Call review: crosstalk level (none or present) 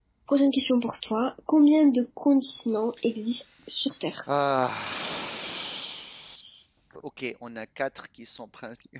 none